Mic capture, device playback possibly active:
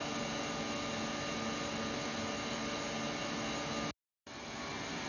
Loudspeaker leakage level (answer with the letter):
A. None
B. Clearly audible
A